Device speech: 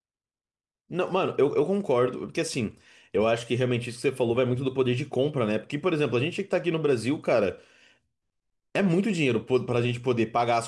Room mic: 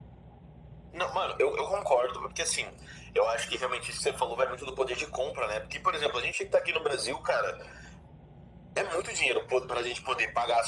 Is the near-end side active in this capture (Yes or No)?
No